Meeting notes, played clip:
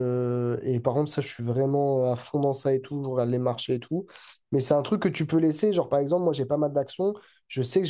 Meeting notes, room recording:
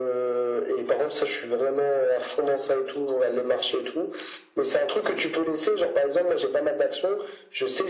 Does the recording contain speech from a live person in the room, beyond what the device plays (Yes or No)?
No